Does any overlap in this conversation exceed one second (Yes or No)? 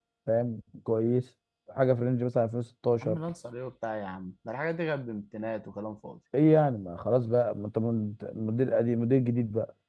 No